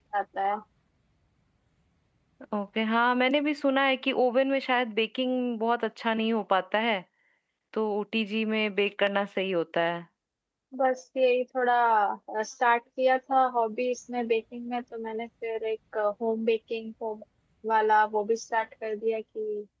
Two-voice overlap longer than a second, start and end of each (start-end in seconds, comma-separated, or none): none